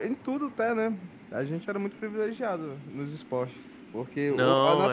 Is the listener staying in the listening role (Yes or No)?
Yes